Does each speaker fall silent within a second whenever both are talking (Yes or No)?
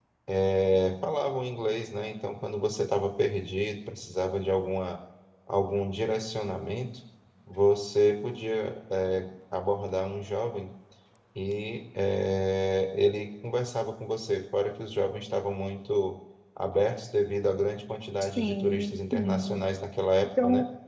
No